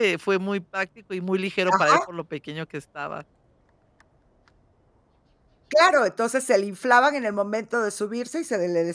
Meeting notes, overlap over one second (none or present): none